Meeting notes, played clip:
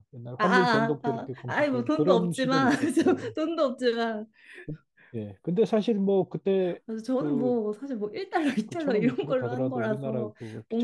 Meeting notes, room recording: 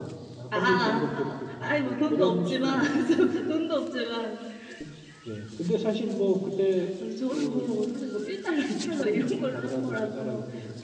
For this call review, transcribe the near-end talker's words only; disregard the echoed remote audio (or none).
none